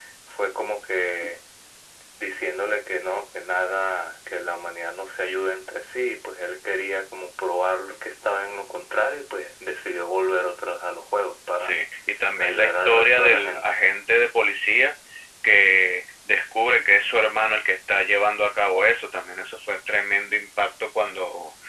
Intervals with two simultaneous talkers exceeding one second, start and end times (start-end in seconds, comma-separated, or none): 12.4-13.7